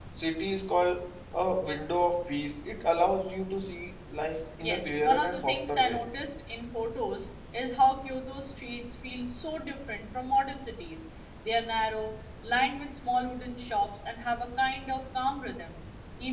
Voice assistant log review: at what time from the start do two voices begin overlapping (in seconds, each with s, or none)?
4.6 s